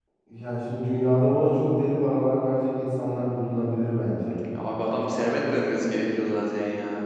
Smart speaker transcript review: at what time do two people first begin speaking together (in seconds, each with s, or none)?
none